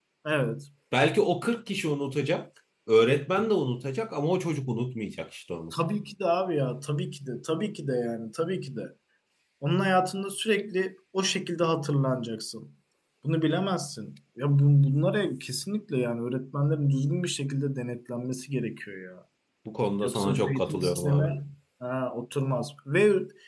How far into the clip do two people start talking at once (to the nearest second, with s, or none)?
20 s